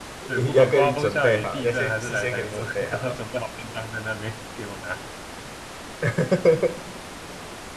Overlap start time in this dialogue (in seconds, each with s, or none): 0.5 s